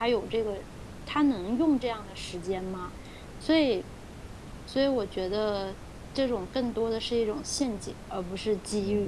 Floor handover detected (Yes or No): Yes